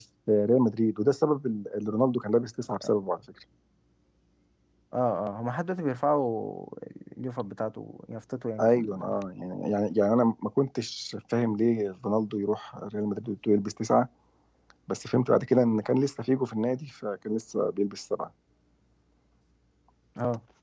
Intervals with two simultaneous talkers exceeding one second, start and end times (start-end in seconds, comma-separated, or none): none